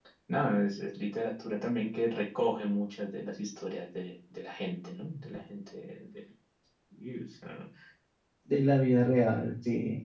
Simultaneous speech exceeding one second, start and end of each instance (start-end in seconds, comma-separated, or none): none